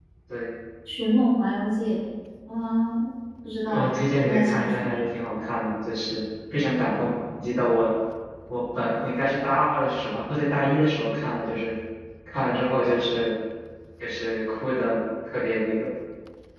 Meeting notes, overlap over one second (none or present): present